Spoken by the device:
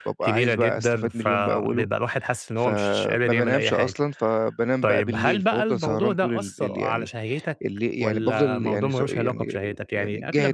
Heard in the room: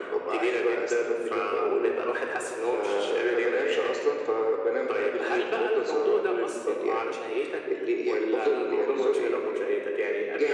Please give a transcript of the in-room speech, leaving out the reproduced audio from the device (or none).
none